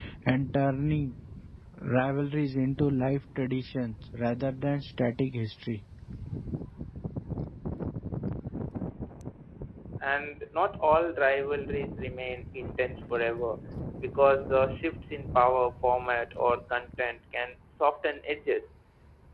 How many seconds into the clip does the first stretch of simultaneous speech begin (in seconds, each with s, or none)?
none